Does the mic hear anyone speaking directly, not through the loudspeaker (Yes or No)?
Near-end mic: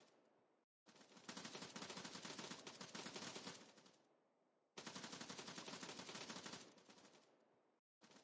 No